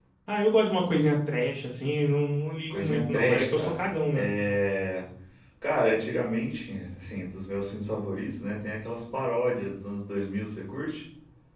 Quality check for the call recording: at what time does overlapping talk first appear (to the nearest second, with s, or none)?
3 s